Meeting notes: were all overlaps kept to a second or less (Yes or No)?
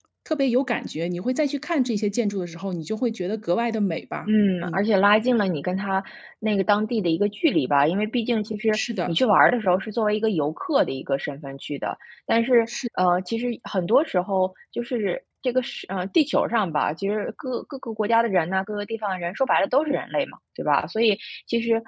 Yes